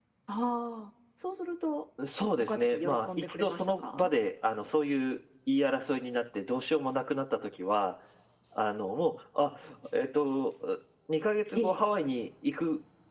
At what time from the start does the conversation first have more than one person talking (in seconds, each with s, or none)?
2.3 s